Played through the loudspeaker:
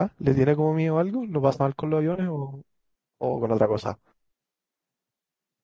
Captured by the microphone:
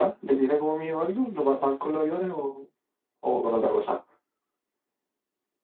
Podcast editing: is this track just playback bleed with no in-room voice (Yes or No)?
Yes